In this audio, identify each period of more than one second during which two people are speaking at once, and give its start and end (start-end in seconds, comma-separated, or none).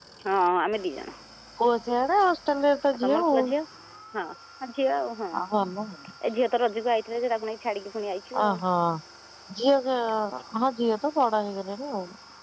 none